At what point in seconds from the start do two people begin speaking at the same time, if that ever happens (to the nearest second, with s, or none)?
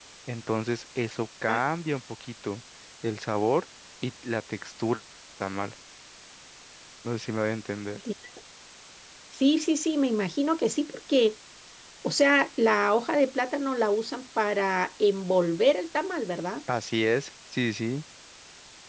none